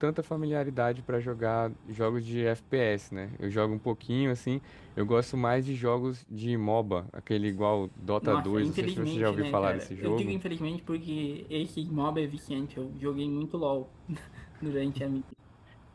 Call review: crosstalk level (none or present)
present